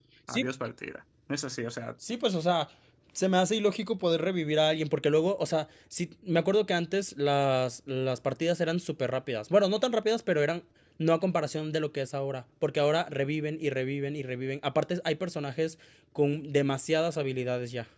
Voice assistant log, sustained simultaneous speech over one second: none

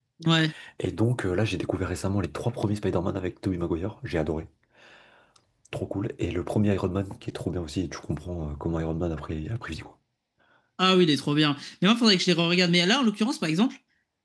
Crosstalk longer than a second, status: none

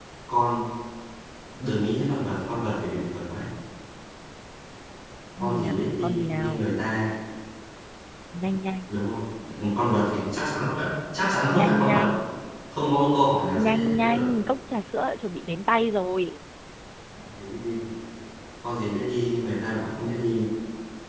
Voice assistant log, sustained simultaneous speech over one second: present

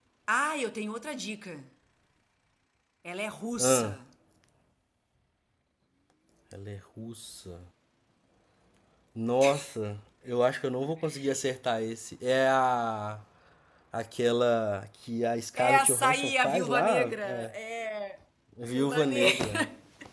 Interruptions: present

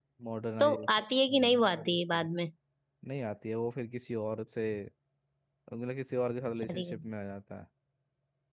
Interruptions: present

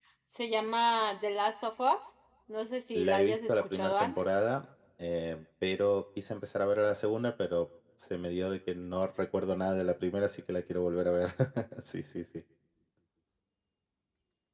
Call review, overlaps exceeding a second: present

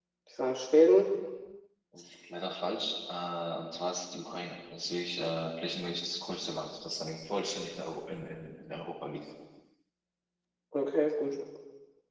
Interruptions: none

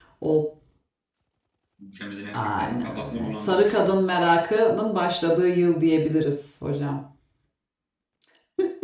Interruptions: present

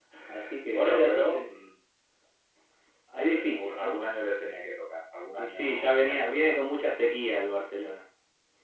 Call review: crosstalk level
present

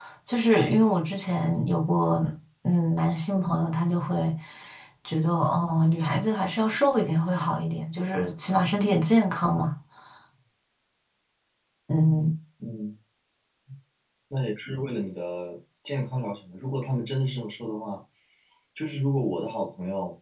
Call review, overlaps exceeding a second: none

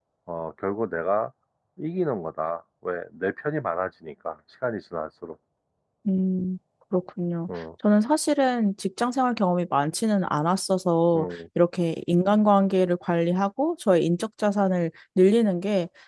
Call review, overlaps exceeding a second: none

